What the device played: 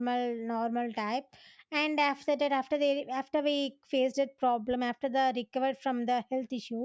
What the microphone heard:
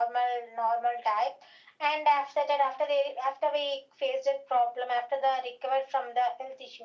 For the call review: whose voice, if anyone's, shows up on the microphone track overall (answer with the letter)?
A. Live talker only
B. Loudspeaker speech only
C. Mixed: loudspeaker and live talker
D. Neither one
B